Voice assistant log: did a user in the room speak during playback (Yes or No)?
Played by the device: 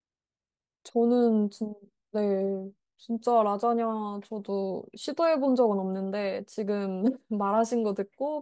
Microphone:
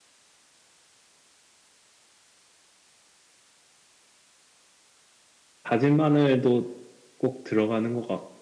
Yes